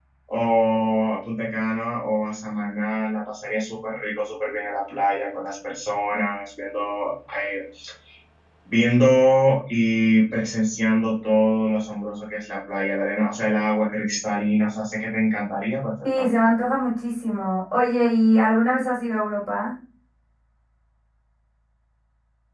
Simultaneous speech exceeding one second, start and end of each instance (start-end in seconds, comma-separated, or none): none